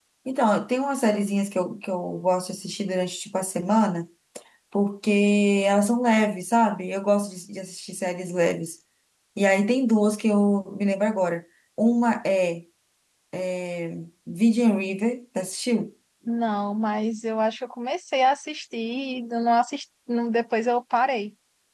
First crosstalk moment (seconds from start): none

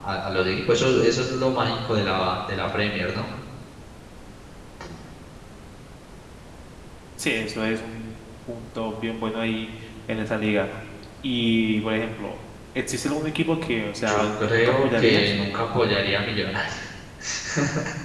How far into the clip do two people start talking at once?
14.0 s

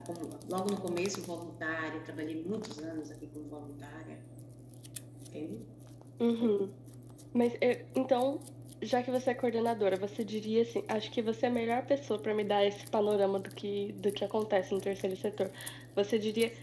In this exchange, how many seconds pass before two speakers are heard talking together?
none

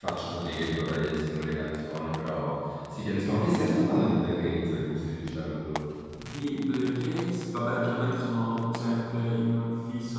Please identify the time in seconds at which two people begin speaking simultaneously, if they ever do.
none

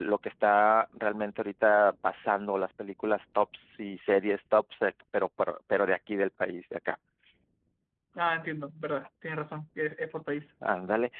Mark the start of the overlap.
none

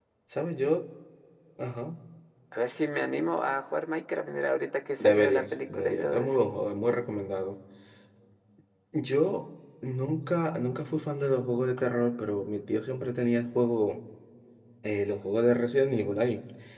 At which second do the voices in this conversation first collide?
5.0 s

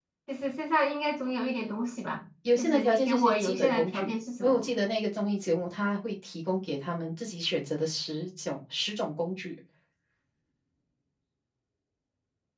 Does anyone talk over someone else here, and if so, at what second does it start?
2.4 s

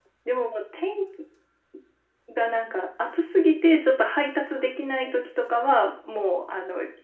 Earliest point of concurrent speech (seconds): none

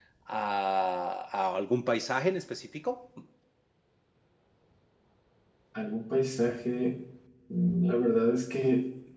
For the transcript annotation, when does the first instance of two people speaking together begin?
none

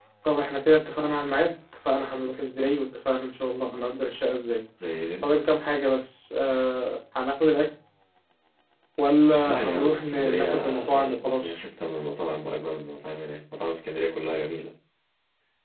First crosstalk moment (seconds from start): 9.4 s

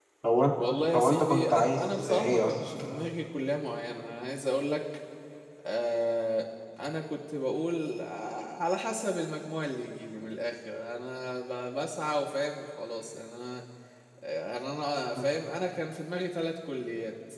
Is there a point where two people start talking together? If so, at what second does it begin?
0.9 s

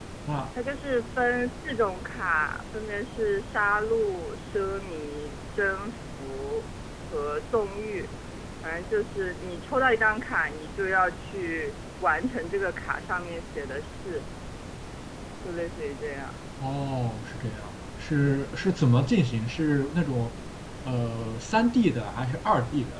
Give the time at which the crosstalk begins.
none

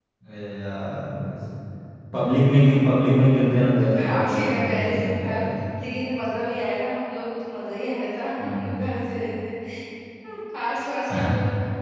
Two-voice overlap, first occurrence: 4.0 s

